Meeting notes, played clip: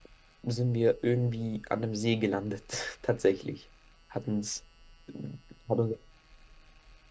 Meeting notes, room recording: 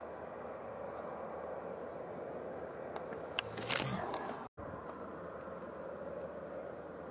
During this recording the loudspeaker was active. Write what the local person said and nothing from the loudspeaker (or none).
none